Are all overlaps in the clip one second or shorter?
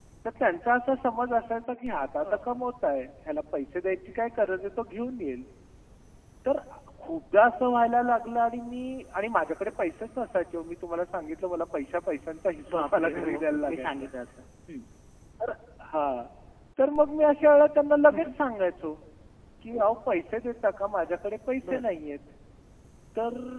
No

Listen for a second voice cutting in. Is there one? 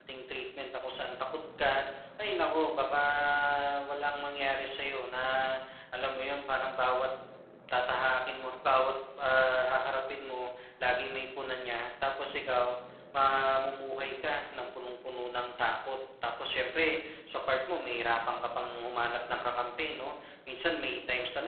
No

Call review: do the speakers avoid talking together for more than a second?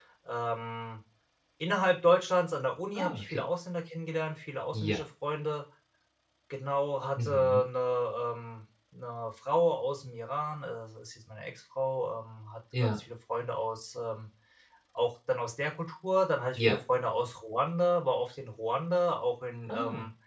Yes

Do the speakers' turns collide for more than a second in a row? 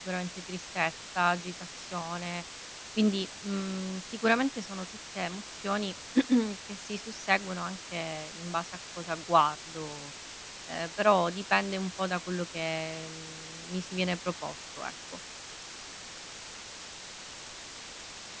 No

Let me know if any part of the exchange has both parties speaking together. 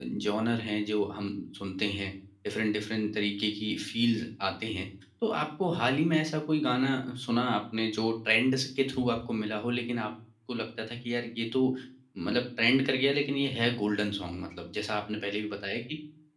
No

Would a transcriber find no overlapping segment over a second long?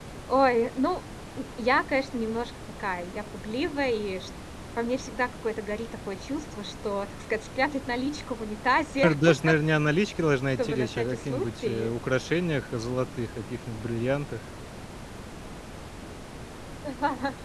No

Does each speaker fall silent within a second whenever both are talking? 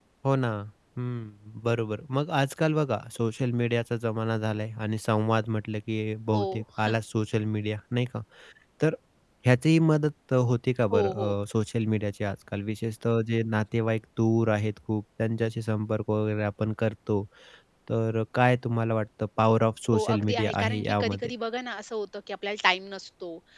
No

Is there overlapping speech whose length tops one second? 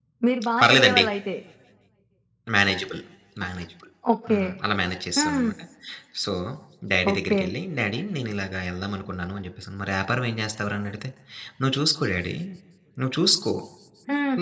No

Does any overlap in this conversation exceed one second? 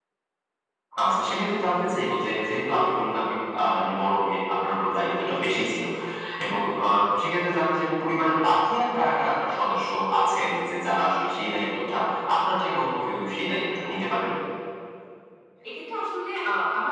No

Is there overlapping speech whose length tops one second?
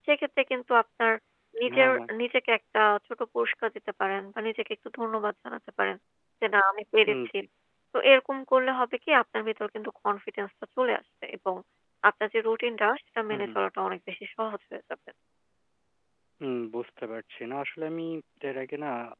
No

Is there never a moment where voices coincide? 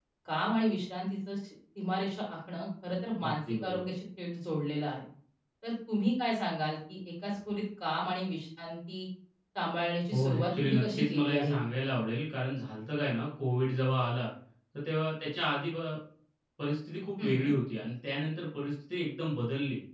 No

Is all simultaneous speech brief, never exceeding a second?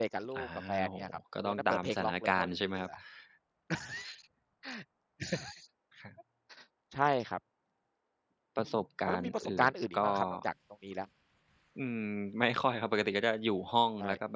No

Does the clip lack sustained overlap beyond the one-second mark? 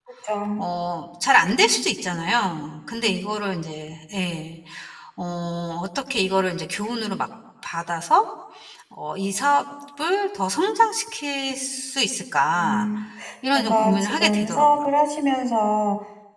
No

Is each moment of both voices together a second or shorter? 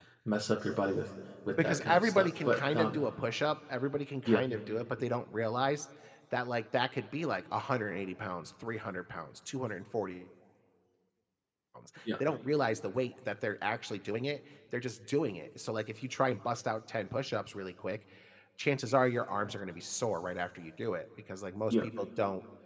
No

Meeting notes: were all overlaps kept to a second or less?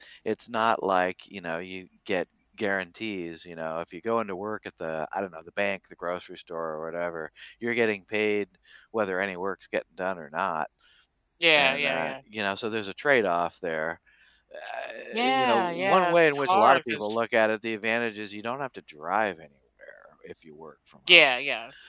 No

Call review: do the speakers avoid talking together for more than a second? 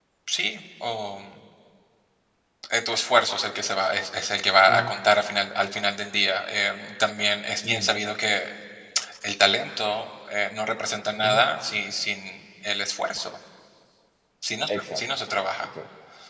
Yes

